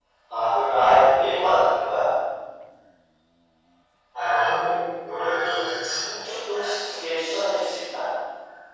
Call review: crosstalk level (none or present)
none